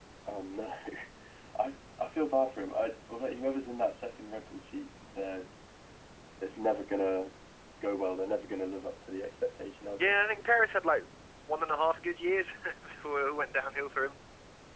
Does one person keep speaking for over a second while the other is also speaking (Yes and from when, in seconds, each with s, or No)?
No